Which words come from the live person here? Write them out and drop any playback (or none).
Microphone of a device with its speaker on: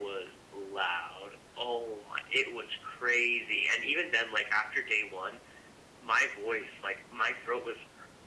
none